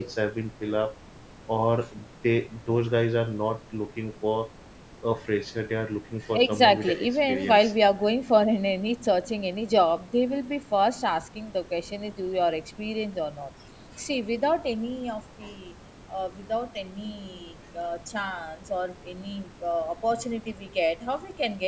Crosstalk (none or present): present